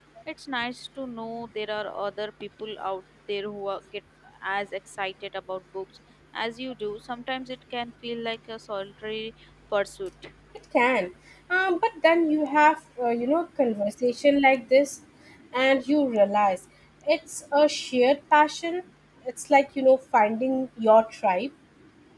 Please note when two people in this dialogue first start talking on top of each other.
none

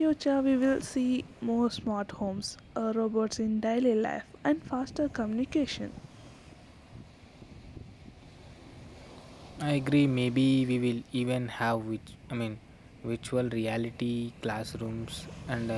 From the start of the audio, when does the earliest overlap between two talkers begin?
none

